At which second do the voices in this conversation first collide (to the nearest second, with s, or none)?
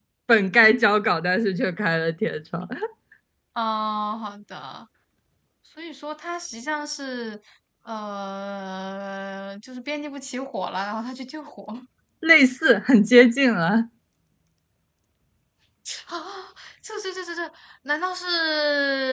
none